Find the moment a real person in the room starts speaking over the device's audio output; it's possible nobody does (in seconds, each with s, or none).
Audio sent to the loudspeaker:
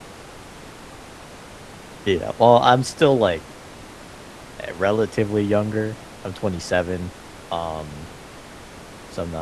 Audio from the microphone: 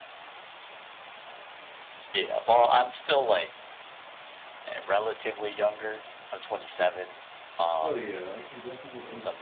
7.8 s